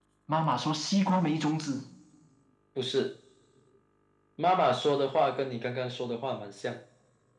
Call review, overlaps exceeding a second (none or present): none